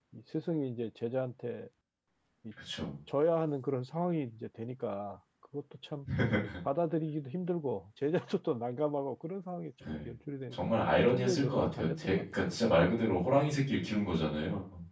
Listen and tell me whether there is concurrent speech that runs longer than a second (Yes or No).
Yes